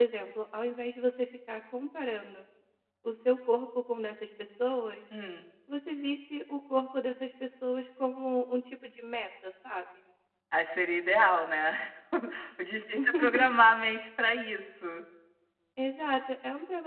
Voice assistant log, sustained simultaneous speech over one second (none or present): none